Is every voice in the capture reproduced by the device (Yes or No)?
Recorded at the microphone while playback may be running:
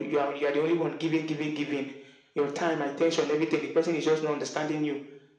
Yes